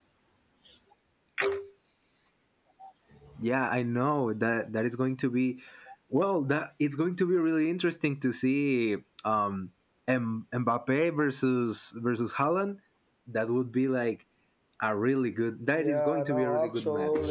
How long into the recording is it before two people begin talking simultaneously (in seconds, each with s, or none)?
15.8 s